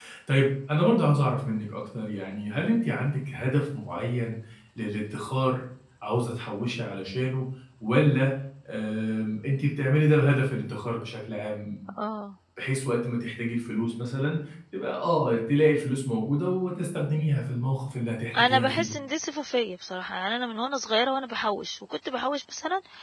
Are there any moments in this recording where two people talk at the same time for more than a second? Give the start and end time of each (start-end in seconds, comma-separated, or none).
none